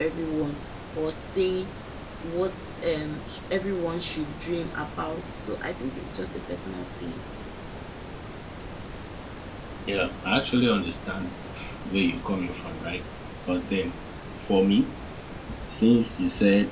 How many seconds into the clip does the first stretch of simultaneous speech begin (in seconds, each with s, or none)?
none